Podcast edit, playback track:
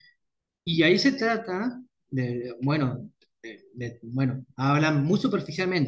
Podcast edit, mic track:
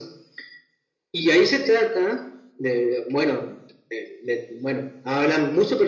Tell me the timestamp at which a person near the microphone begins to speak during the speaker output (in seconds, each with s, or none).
none